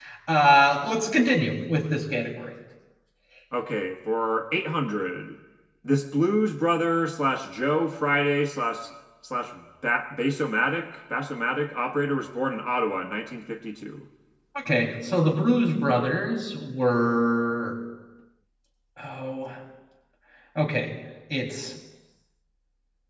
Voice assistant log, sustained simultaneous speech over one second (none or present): none